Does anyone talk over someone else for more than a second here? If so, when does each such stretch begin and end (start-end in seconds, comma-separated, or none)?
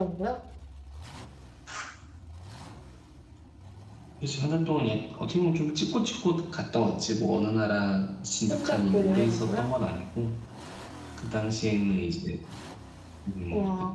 8.5-9.7